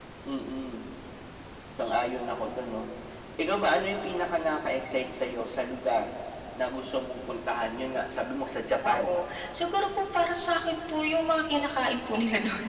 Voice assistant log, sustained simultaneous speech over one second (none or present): none